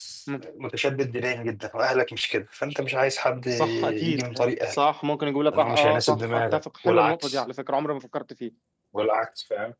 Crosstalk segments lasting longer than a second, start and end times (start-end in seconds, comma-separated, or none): 3.5-4.8, 5.5-7.4